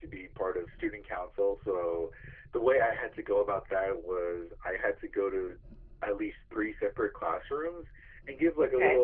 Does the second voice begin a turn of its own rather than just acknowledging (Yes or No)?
No